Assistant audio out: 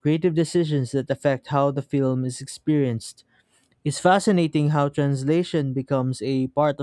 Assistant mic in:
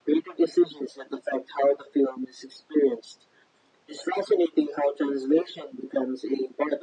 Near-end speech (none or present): none